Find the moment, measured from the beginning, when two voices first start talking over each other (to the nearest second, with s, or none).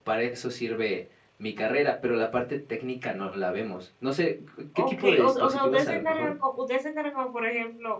5 s